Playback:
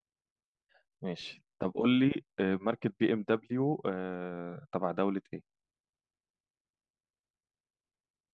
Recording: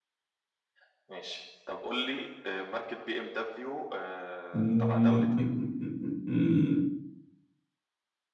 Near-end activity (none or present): present